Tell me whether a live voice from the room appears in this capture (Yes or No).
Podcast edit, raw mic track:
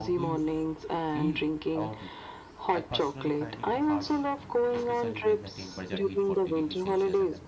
Yes